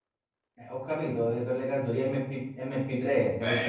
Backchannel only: No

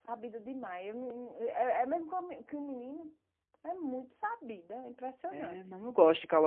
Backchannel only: No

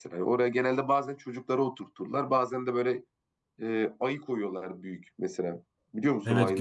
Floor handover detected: Yes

